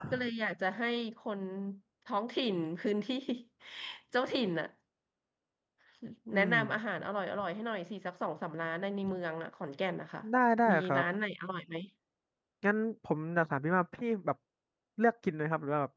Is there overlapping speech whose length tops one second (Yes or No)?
No